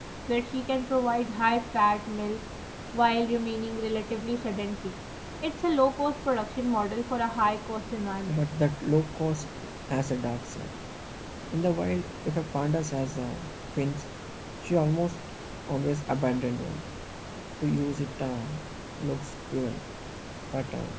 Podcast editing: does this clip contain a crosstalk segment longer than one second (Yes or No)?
No